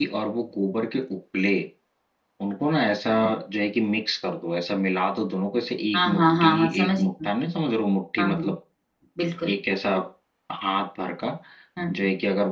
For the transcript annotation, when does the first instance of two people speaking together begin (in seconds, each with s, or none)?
6.0 s